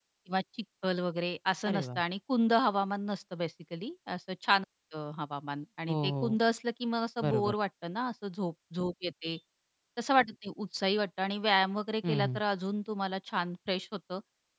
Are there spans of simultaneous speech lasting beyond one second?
No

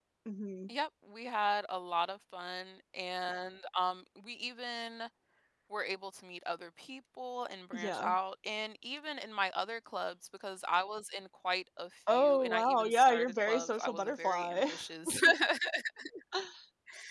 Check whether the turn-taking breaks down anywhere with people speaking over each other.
Yes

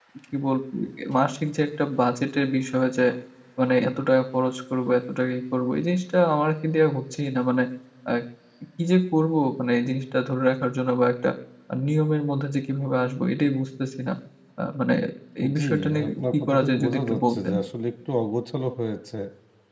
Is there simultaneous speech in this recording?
Yes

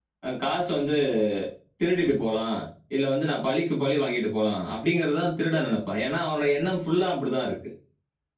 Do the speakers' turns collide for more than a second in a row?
No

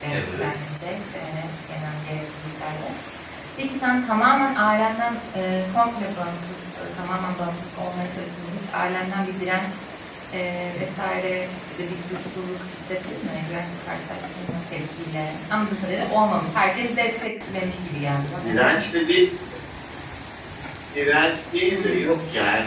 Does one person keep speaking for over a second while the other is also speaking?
No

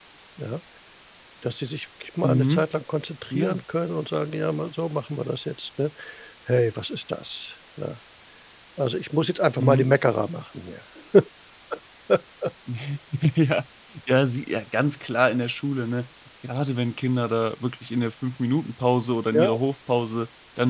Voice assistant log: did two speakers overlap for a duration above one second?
No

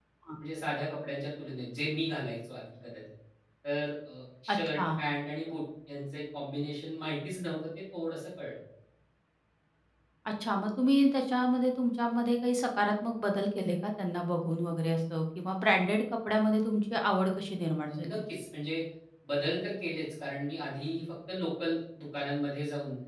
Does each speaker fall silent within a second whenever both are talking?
Yes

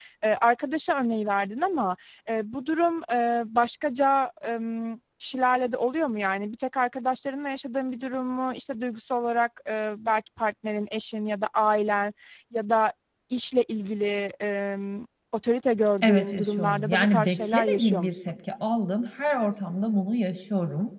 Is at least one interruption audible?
Yes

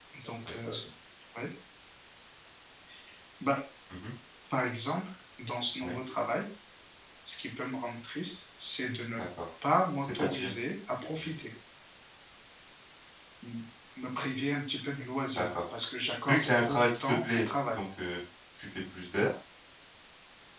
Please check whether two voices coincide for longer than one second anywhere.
Yes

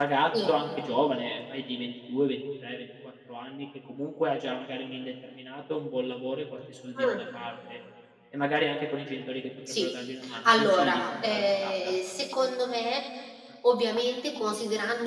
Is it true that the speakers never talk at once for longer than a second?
No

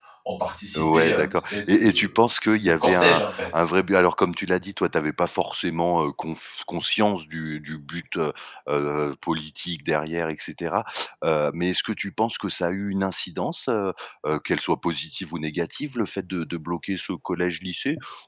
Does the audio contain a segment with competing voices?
Yes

